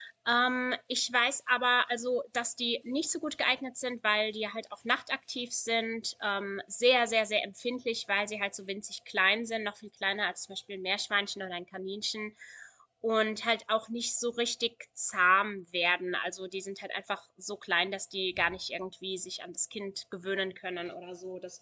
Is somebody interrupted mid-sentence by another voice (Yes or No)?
No